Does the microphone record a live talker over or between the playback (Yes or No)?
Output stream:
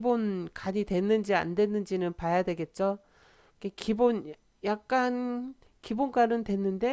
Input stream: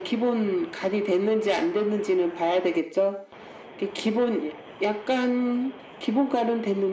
No